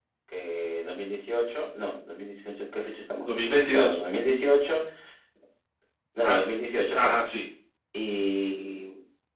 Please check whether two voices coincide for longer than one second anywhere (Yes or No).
No